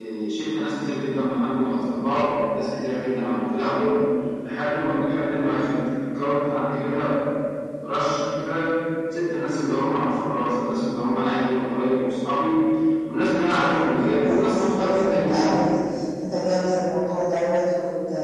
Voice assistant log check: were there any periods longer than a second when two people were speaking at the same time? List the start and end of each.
14.2-15.5

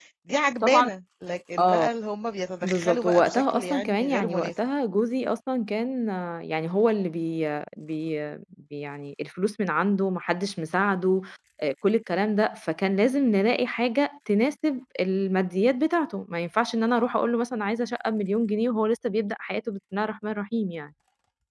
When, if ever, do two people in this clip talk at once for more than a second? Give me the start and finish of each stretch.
2.6-4.5

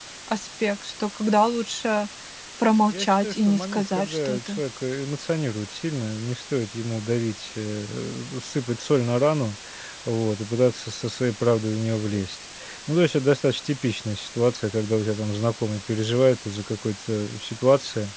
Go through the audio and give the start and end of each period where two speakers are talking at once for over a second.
2.9-4.6

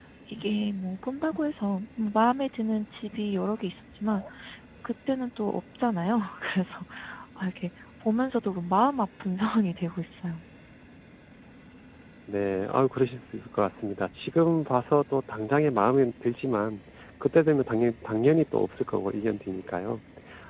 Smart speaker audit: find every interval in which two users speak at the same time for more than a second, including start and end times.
none

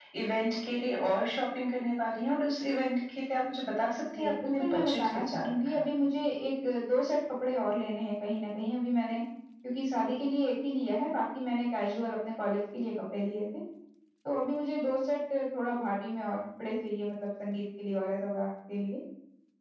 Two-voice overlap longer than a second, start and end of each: 4.1-5.8

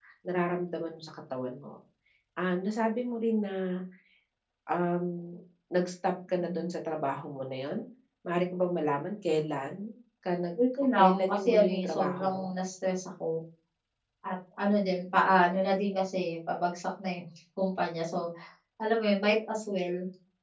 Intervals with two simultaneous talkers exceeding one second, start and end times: 11.0-12.4

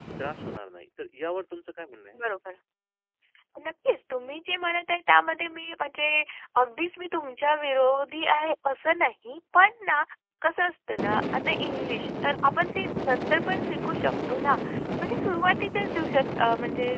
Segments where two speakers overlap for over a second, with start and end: none

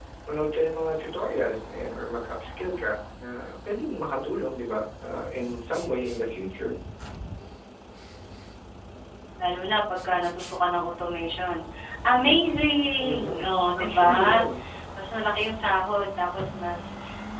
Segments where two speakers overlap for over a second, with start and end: 13.0-14.4

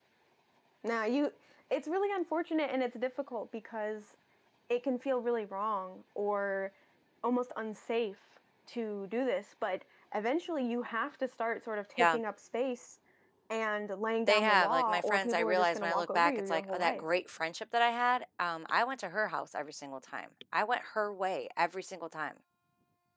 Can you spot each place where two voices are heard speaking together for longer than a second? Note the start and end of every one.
14.3-17.0

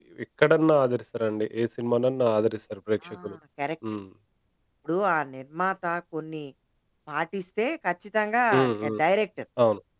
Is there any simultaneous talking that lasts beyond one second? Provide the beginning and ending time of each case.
none

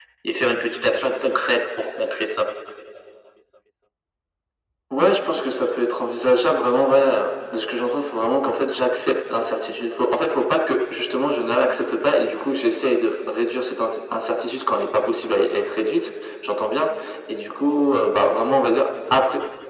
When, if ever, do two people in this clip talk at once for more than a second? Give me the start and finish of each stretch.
none

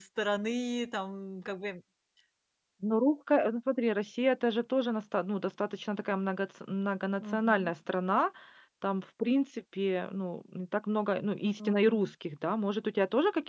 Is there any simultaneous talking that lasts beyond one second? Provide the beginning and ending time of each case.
none

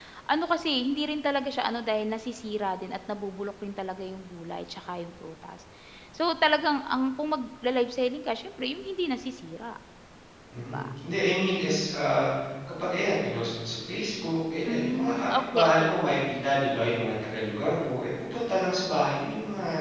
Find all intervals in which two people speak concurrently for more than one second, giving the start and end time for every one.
14.7-15.9

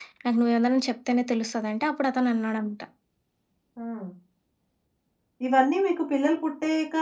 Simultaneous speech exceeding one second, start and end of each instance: none

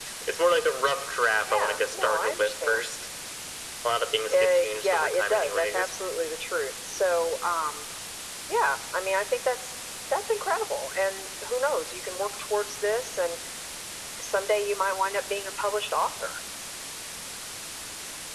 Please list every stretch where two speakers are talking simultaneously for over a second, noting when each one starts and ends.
1.5-2.9, 4.3-5.9

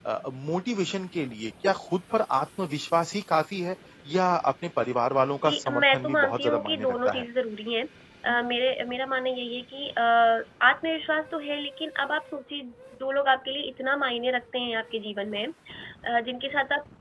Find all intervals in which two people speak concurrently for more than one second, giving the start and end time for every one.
5.4-7.2

